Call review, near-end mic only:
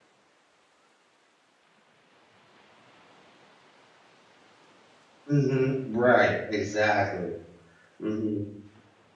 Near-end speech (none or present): present